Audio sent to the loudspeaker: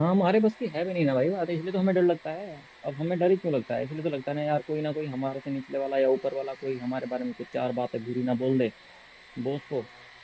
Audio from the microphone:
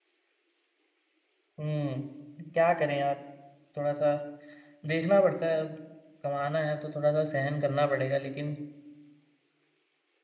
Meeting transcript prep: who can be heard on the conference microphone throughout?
user only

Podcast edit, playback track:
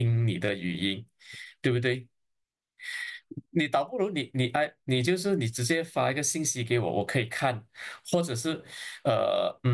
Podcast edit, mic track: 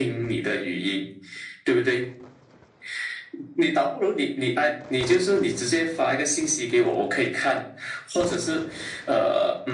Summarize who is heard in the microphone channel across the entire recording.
echo only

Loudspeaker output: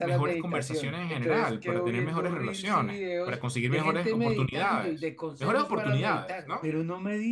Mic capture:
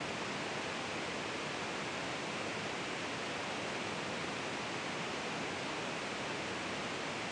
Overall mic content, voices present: neither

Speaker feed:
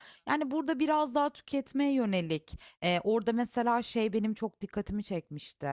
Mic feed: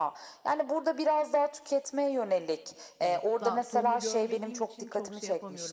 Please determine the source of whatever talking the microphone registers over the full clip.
both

